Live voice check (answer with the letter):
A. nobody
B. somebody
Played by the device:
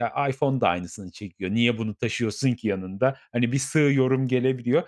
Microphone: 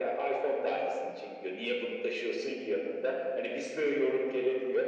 A